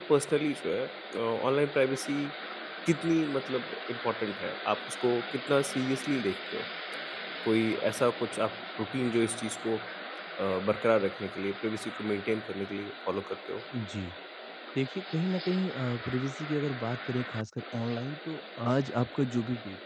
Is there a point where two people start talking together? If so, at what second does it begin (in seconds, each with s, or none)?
none